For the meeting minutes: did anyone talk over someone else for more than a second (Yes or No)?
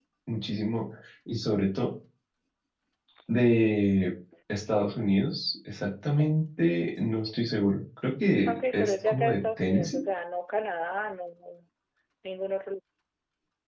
Yes